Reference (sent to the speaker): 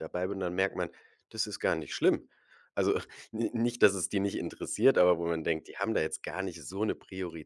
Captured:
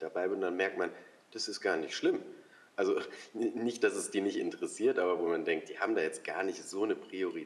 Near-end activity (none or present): none